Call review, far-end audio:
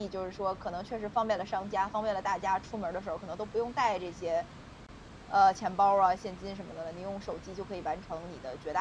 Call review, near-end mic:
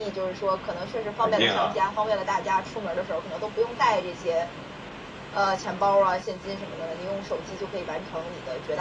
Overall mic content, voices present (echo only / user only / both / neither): both